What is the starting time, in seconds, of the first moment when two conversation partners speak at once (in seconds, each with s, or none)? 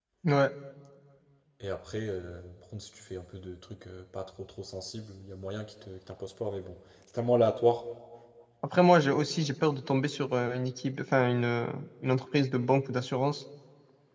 none